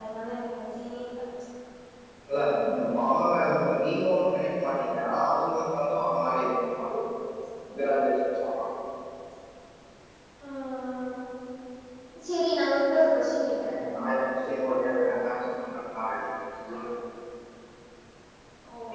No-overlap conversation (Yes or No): Yes